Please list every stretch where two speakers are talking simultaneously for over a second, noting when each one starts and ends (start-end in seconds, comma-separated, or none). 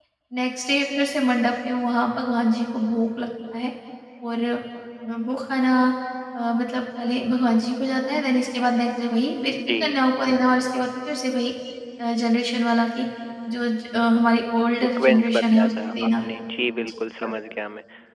14.8-16.2